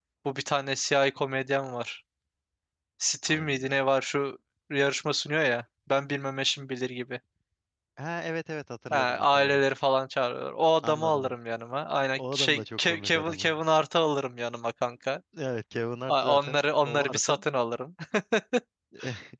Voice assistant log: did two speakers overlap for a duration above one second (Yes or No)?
Yes